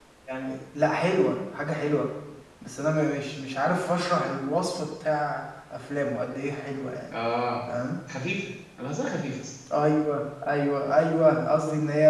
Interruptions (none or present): none